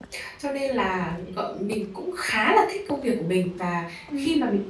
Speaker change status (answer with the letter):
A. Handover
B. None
B